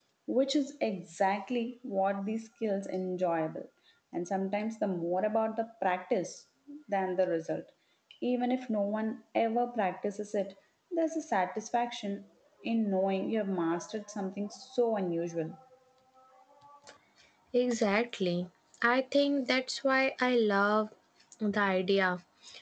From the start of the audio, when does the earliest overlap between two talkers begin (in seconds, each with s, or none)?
none